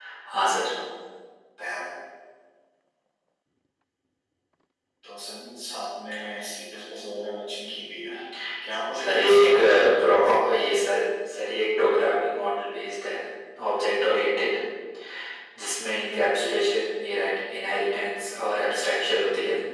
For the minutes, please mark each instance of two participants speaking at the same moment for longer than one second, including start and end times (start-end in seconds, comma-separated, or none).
9.0-10.7